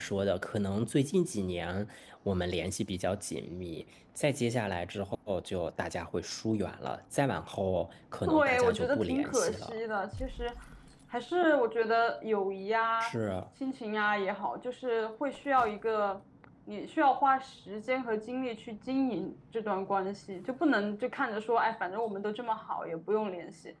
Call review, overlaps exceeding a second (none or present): present